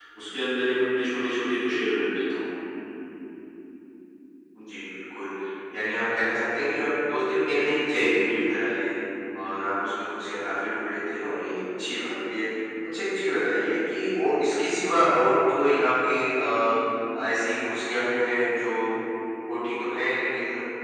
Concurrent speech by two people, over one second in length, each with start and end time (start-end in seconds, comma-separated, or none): none